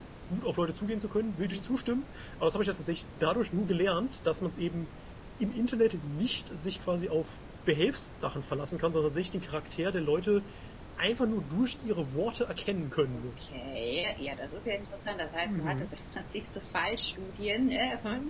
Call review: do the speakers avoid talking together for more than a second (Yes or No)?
Yes